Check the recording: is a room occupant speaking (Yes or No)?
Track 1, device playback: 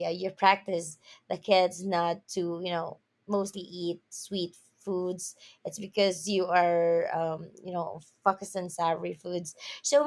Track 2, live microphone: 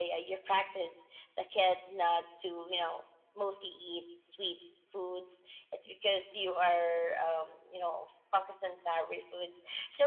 No